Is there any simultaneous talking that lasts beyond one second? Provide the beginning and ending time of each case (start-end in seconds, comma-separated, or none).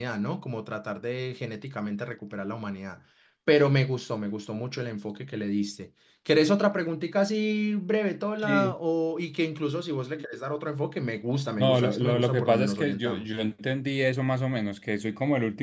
11.6-13.3